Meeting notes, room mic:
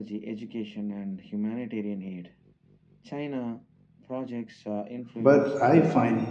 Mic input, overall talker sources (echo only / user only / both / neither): both